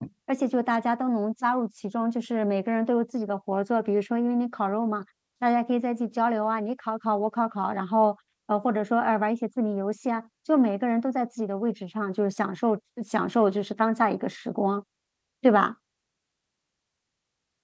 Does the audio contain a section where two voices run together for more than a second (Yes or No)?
No